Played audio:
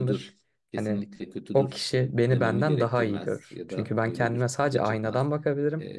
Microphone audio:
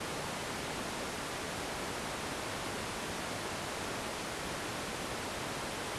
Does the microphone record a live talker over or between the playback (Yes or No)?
No